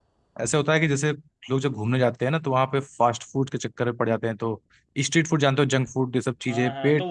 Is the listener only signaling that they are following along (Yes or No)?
No